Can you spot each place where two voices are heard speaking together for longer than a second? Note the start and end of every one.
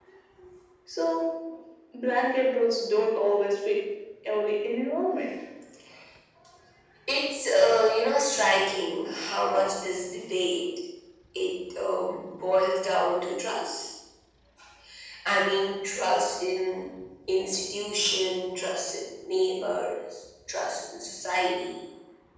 none

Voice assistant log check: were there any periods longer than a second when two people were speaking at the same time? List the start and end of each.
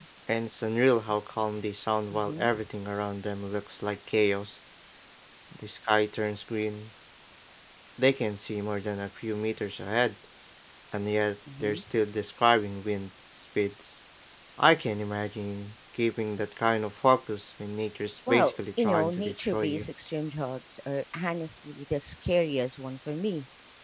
18.3-19.9

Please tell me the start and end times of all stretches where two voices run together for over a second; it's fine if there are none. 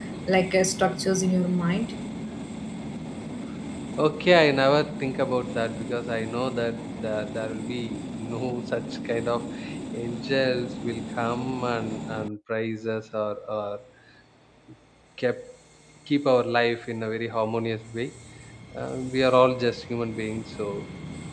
none

